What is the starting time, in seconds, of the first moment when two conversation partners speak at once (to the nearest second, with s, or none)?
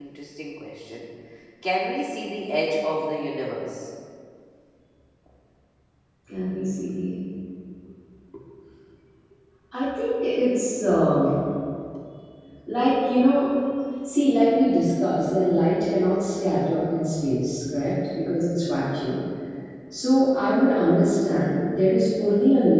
none